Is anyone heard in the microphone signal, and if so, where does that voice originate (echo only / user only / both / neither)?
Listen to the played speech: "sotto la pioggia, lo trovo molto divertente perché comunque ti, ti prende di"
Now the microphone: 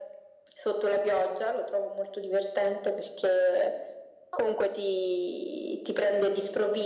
echo only